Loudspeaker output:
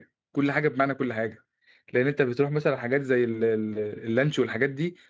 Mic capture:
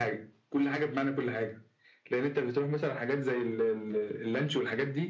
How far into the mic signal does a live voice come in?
none

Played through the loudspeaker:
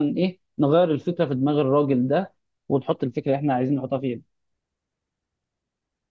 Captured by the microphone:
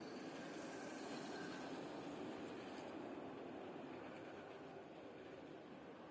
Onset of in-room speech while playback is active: none

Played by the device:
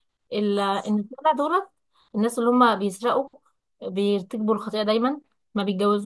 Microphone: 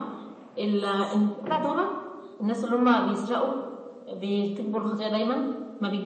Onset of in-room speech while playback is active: none

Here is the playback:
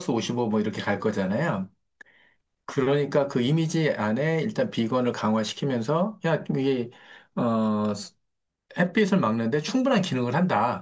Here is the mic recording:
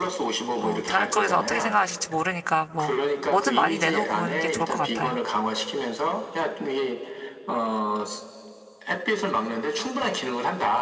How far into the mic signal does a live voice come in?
0.6 s

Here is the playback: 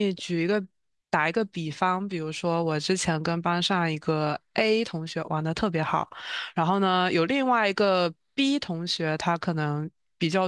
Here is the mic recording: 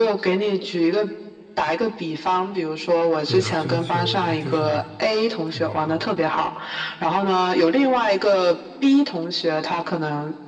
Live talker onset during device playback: 3.2 s

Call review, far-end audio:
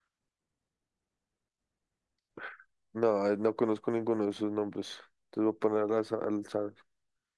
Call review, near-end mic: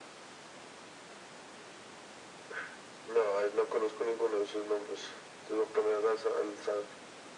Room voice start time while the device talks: none

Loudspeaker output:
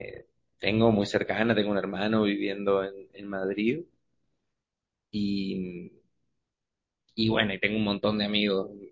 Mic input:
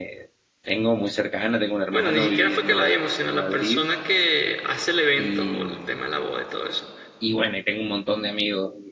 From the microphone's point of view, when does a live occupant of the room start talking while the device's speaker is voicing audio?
1.9 s

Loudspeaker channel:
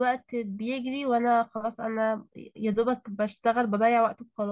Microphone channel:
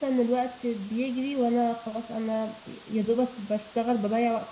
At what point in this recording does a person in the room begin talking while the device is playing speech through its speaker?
none

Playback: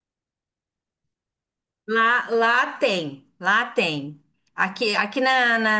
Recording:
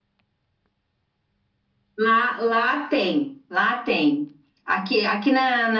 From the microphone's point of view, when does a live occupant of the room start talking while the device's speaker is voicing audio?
none

